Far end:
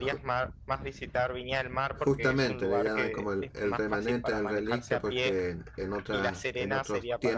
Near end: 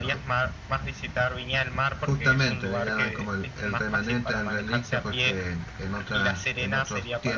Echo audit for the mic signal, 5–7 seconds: echo only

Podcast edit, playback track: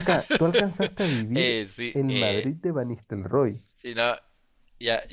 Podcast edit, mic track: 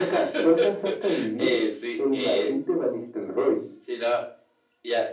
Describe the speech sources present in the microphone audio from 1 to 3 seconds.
echo only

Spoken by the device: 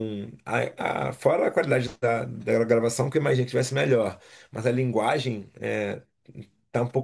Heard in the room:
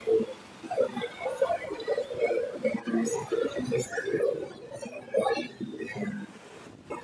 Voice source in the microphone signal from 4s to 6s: echo only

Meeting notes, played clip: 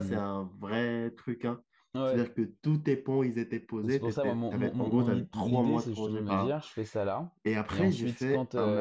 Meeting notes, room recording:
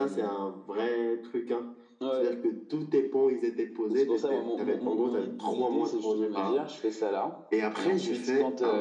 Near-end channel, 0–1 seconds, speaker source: echo only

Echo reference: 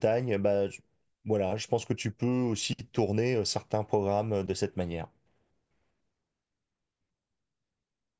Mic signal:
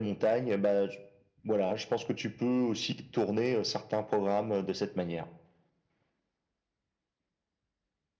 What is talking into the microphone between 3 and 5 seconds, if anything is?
echo only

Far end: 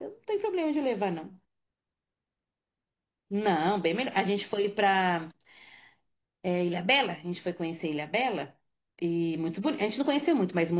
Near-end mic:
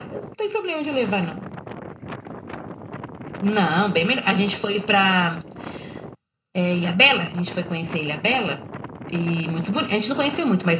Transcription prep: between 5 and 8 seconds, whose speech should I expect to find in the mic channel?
echo only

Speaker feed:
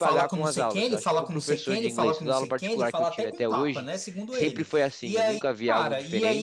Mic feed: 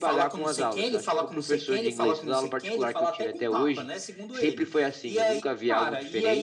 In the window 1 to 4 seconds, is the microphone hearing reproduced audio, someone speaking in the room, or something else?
echo only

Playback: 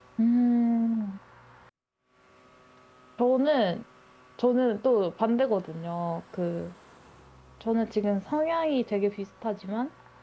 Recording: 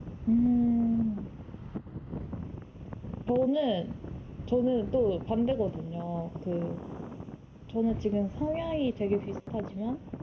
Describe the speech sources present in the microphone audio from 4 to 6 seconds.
echo only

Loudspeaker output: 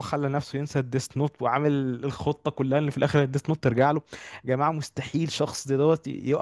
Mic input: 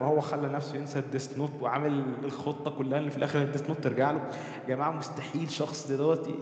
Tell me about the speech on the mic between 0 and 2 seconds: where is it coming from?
echo only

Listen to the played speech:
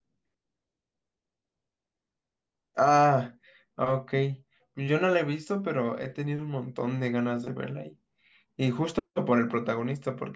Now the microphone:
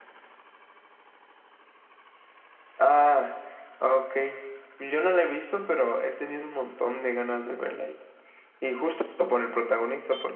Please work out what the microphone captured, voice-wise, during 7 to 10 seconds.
echo only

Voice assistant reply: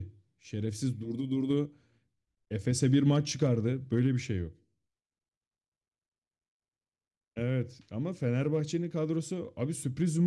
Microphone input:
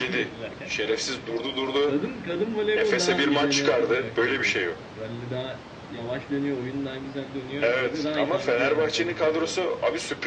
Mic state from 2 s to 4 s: both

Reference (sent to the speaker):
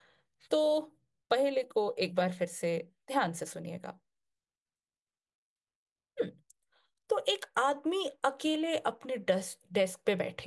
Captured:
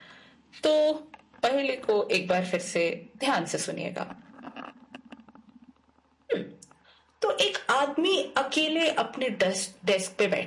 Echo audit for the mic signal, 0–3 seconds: echo only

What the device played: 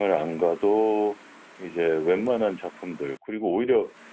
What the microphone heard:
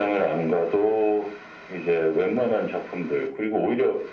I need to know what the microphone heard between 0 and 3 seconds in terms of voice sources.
echo only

